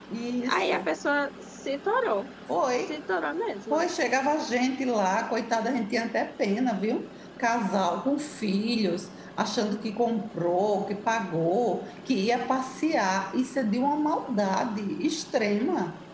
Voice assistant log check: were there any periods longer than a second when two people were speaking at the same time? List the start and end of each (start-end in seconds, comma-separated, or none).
none